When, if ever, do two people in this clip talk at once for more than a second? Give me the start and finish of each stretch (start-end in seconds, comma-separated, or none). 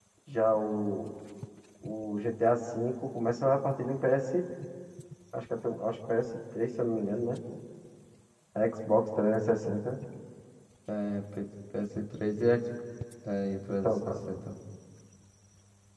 none